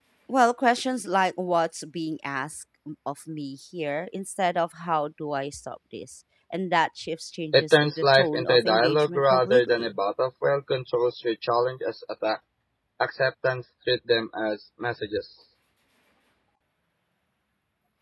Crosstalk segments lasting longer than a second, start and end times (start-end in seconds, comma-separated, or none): 7.5-9.9